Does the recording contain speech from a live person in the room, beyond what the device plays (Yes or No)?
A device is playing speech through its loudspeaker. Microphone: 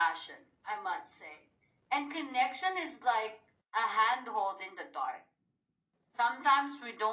No